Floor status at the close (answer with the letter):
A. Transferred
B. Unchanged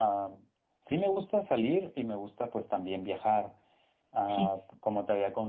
B